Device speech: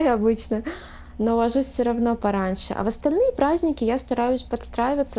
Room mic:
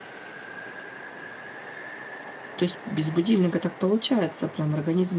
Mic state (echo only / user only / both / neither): user only